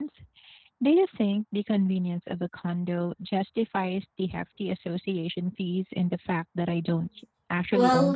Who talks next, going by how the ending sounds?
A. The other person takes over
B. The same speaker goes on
A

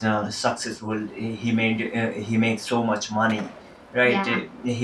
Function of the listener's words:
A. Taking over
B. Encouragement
B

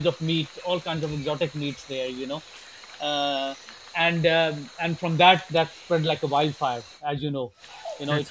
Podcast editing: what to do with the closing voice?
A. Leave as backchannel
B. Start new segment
A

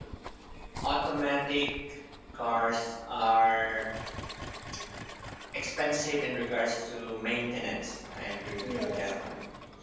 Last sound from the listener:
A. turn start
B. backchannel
B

